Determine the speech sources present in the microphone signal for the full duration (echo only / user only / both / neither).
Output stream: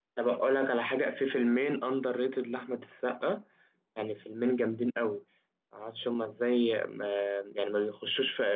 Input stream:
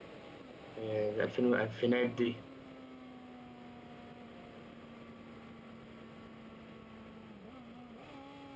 user only